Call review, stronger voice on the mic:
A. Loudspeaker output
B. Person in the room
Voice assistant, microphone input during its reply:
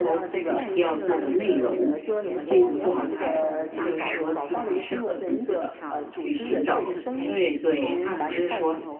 B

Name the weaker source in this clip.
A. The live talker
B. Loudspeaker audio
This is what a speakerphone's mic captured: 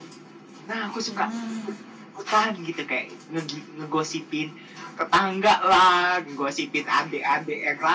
A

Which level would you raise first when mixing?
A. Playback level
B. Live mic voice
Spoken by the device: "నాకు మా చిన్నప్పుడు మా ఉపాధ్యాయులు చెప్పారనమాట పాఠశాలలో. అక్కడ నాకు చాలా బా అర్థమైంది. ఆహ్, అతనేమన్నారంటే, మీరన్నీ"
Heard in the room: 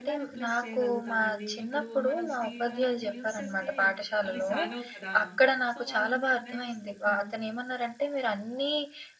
B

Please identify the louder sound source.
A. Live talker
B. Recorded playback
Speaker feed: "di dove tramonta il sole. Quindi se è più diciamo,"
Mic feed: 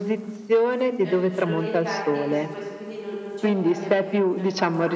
B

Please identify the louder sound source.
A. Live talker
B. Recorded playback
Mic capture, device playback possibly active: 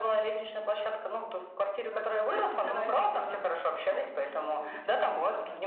B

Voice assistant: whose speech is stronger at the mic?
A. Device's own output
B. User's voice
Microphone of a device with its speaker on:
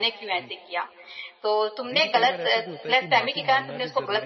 A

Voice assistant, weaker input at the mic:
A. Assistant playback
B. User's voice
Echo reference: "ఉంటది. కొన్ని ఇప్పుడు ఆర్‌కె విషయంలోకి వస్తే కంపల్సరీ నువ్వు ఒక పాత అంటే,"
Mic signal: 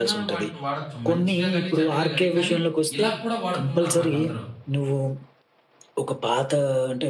B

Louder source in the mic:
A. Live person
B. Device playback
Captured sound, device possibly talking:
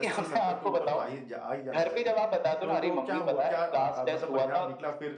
B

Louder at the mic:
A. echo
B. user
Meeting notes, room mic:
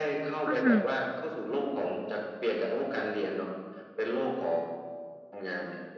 B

